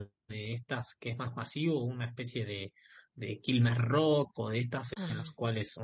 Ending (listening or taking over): listening